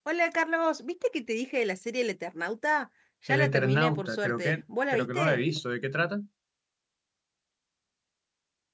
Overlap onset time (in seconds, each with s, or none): 3.3 s